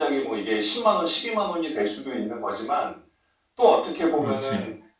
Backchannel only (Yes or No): Yes